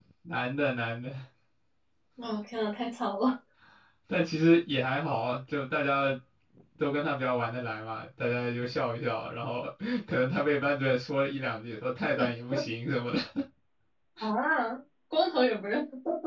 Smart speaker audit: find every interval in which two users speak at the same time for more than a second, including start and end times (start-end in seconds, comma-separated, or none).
none